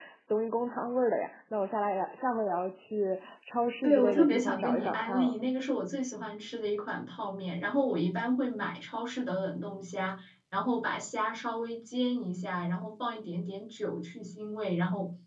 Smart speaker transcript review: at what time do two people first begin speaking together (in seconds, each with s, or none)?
3.8 s